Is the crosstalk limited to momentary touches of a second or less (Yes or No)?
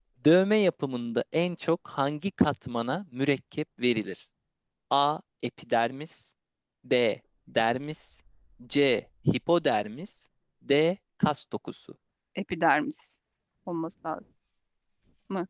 Yes